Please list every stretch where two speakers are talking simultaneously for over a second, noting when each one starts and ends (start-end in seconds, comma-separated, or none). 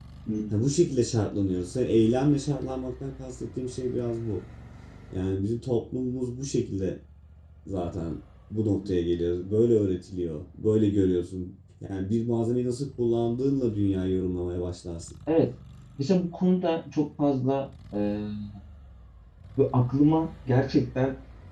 none